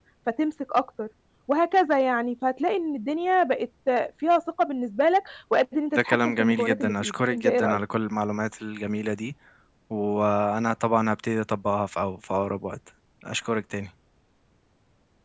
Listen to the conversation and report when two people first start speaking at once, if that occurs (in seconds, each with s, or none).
5.9 s